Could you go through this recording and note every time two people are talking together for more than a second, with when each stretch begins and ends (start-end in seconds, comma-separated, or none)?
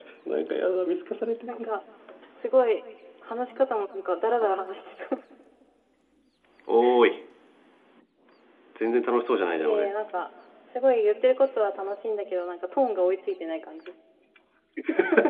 none